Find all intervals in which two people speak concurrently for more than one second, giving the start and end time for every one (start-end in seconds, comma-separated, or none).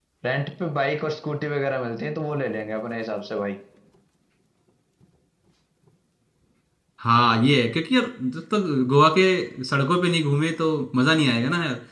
none